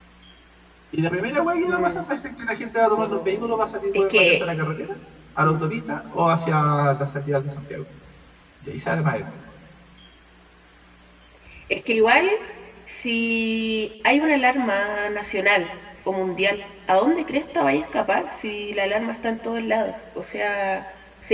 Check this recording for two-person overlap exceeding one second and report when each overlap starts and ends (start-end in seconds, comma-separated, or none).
3.0-4.4